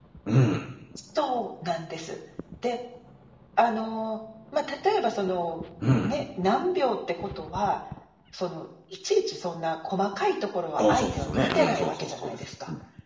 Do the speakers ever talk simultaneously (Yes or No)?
Yes